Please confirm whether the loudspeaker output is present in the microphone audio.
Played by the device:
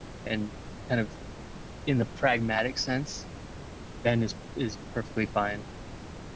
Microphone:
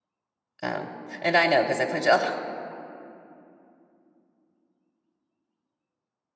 No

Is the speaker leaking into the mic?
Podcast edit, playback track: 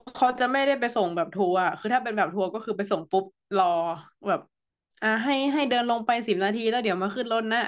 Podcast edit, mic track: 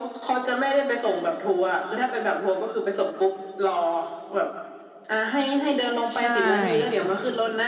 Yes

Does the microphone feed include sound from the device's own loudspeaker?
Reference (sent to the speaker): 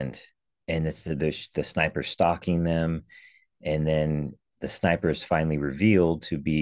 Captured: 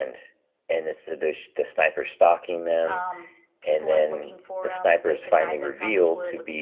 Yes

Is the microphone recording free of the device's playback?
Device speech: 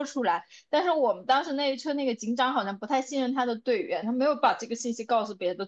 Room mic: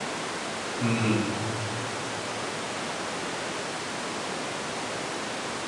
Yes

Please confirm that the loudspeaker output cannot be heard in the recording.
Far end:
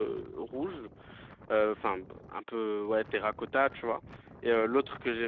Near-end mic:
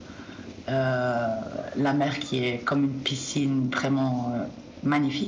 Yes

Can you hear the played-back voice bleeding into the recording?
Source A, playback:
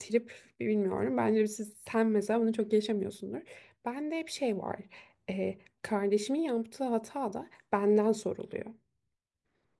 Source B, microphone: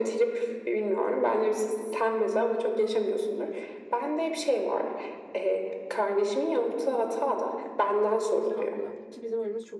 Yes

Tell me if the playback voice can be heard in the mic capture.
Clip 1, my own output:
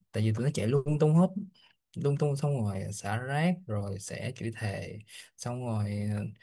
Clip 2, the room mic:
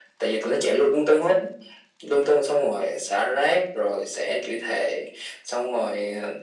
Yes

